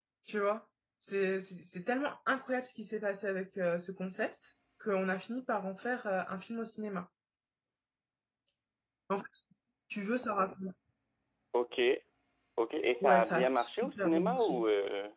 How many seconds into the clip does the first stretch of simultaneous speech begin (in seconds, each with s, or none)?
13.0 s